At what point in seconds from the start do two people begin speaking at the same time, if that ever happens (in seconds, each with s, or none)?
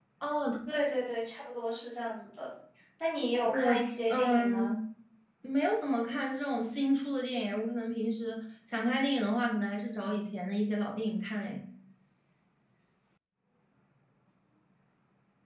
3.4 s